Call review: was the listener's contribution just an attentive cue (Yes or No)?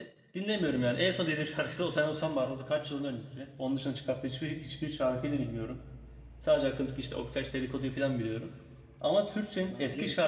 Yes